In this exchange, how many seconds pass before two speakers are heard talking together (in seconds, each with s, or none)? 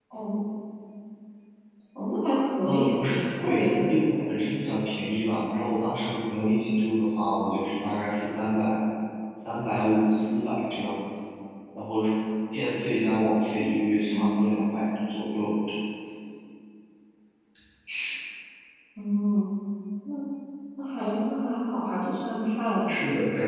2.6 s